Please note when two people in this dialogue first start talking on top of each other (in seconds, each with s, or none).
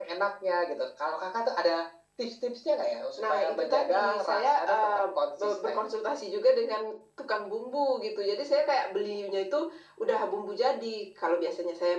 3.2 s